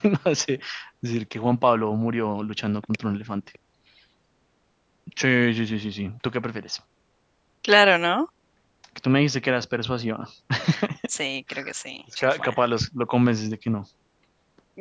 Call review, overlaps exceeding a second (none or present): none